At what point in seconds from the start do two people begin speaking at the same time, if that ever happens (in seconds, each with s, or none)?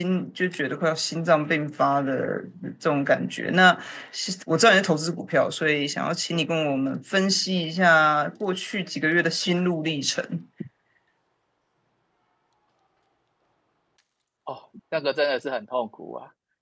none